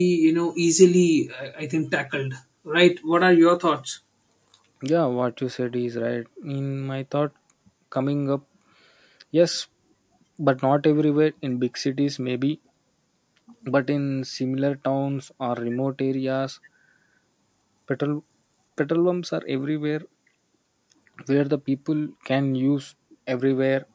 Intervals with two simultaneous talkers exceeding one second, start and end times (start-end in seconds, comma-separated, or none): none